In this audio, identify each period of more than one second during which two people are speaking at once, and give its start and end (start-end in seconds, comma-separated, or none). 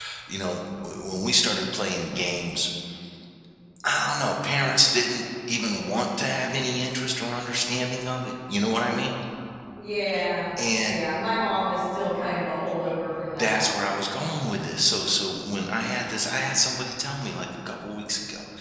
none